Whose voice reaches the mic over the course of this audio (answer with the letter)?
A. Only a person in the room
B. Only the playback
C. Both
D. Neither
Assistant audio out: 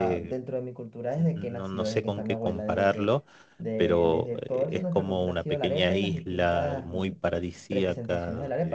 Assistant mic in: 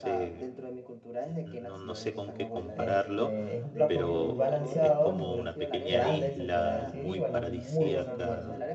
C